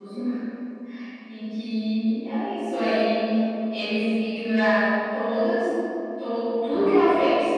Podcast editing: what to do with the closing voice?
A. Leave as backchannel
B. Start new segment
A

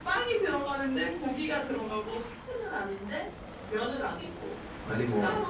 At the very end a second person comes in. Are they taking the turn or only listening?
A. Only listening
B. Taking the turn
A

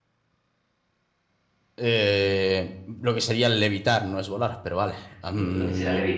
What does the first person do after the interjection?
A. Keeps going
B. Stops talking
B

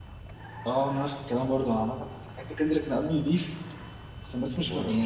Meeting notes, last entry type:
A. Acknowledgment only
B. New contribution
A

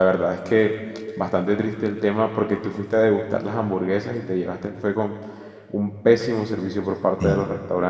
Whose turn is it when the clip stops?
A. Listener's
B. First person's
B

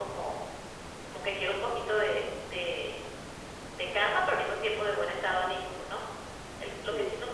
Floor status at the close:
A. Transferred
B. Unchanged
B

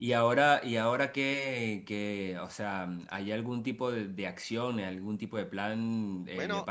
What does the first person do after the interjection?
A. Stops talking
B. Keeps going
B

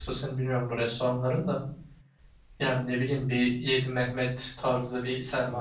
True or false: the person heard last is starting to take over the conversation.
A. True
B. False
A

